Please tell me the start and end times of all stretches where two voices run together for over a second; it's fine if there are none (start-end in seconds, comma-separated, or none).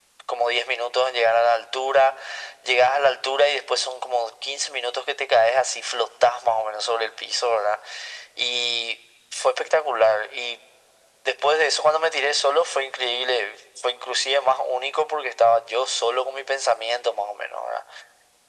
none